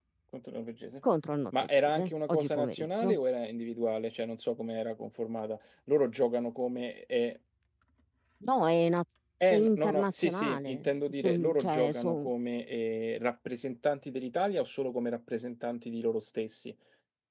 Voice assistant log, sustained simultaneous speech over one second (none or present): present